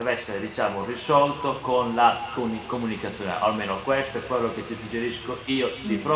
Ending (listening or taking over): listening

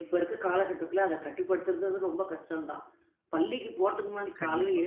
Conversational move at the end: listening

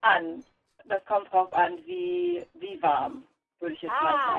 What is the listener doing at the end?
taking over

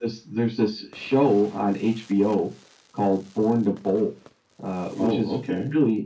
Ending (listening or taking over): listening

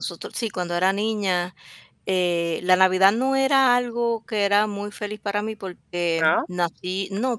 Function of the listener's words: listening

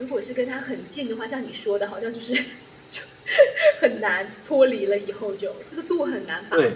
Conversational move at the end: taking over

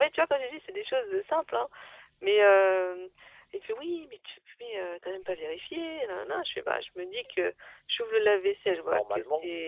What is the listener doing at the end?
listening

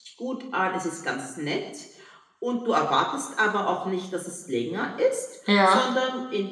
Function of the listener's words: listening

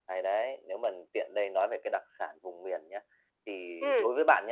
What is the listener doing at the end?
listening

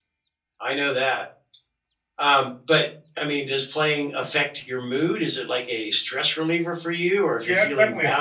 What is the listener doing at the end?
taking over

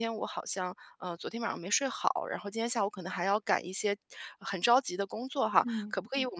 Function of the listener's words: listening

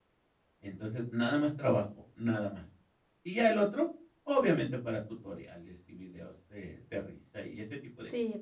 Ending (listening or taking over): taking over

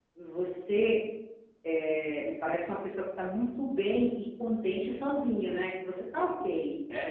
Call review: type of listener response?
taking over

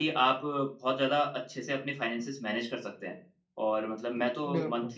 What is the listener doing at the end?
listening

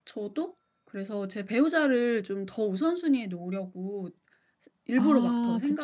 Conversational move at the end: taking over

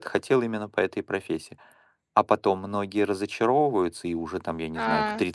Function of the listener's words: taking over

